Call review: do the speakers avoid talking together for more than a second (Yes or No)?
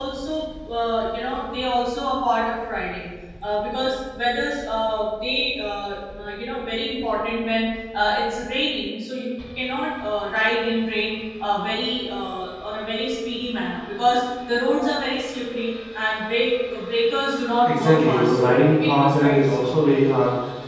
No